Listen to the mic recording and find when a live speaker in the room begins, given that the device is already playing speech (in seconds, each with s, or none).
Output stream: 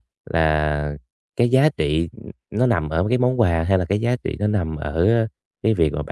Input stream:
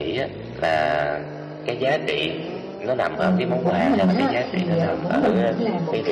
3.1 s